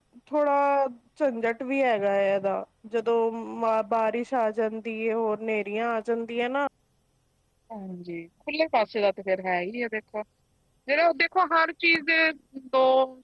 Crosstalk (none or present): none